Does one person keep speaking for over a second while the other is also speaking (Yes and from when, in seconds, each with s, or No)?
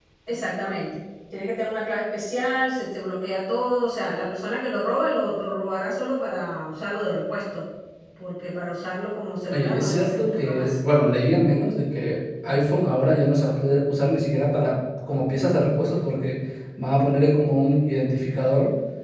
Yes, from 9.5 s